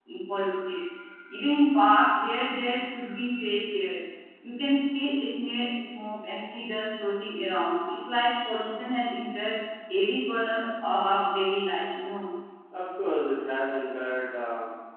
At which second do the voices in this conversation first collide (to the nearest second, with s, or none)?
none